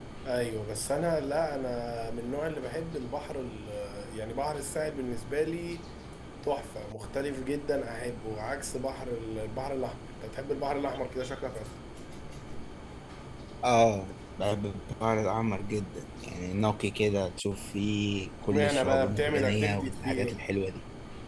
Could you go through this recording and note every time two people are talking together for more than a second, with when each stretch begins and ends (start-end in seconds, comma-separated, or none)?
18.5-20.5